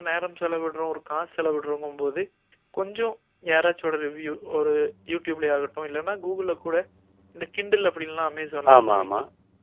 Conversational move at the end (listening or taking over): listening